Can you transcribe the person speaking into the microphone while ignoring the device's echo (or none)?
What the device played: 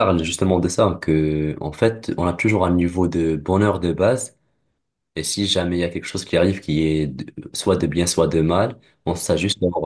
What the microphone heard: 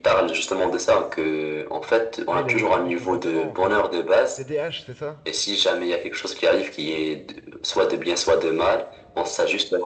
ah, il a des troubles du comportement en fait. TDAH, c'est ça?